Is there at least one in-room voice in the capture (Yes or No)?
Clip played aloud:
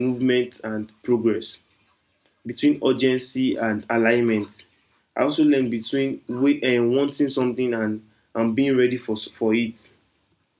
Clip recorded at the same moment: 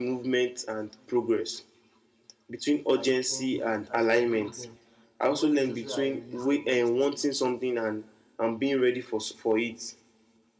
Yes